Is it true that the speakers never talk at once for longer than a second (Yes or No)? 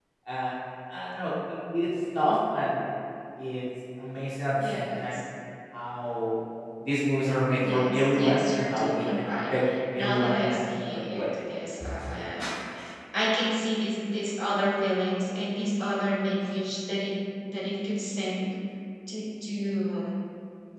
No